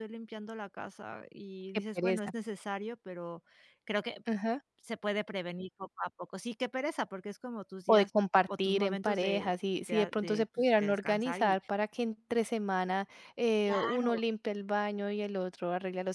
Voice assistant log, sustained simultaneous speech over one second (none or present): present